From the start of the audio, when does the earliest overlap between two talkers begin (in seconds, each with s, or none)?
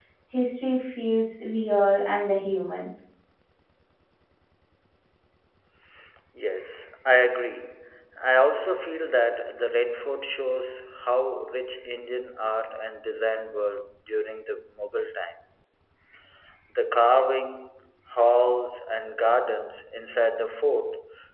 none